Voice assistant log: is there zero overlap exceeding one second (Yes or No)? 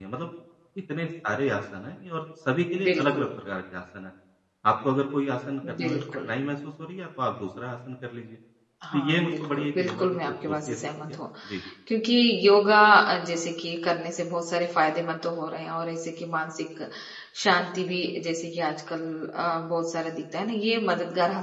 No